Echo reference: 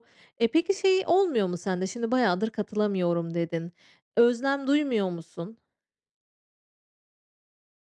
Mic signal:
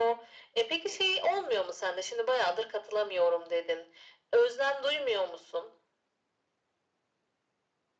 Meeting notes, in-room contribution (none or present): none